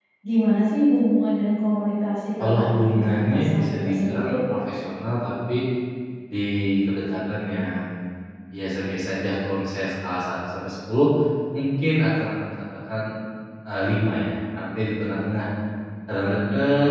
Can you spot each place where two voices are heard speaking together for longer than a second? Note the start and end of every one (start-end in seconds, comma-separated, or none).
2.4-4.4